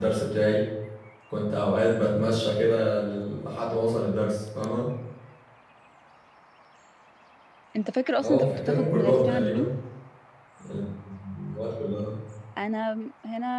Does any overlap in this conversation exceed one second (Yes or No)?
Yes